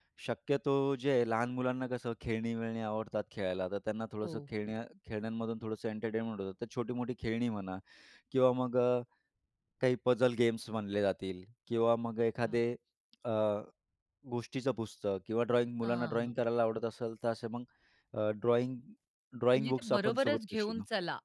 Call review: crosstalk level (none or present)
present